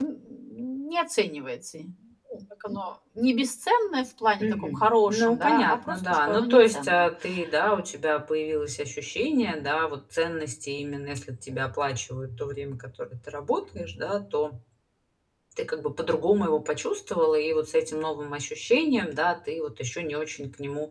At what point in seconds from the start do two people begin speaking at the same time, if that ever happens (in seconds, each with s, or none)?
4.4 s